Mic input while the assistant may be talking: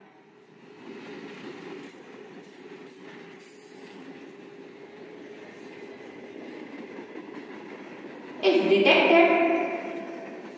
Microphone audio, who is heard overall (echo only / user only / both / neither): user only